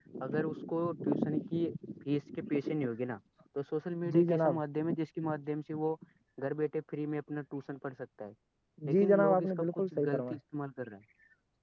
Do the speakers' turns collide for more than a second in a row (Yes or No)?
Yes